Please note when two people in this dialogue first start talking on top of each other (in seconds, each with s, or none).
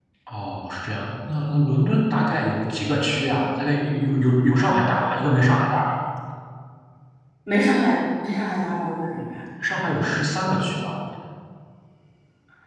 none